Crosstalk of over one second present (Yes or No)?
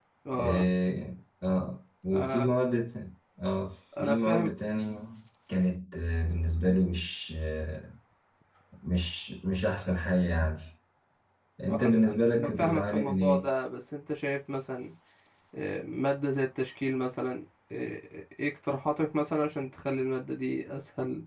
Yes